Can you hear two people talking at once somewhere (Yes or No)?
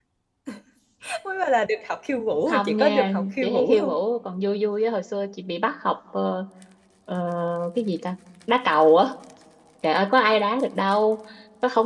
Yes